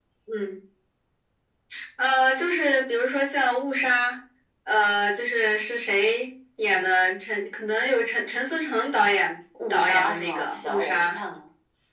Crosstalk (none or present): present